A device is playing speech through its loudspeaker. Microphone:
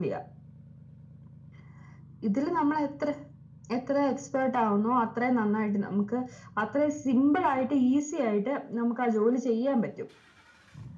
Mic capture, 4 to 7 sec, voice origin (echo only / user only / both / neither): echo only